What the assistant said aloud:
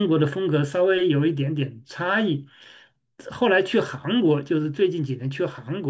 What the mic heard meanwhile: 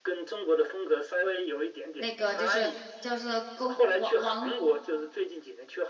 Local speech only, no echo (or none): 那个就是叫做宫王王